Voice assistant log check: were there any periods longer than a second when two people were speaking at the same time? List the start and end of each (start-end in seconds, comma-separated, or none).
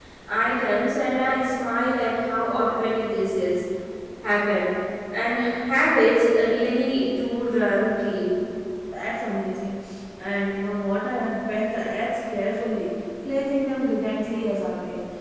none